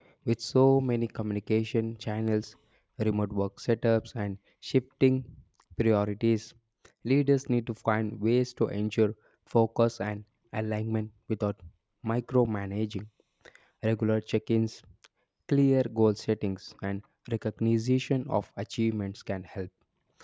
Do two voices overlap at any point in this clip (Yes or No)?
No